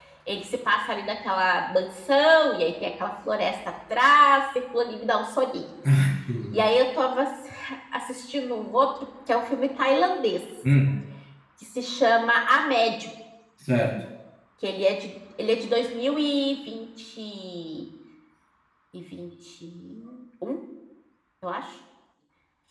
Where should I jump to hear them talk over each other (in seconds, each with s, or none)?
none